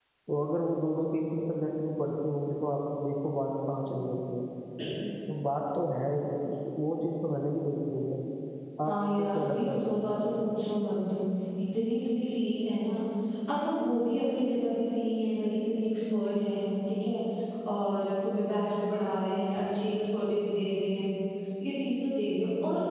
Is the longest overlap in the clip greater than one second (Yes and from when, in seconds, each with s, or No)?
Yes, from 8.9 s